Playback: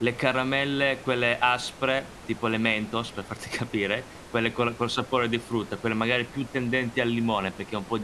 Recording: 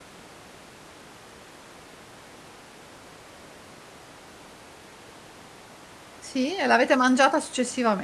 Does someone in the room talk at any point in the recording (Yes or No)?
Yes